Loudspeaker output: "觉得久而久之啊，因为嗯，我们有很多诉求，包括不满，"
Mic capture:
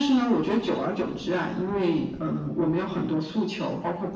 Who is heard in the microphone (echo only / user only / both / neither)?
echo only